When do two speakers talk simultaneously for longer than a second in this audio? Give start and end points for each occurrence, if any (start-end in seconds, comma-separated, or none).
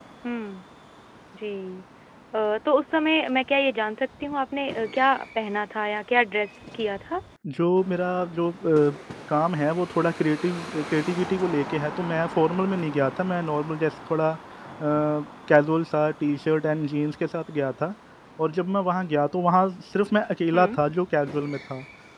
none